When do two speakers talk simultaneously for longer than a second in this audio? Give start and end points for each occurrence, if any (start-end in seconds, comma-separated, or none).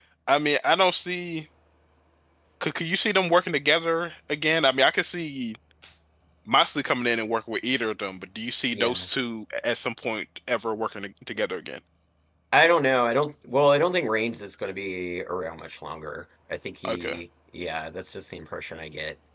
none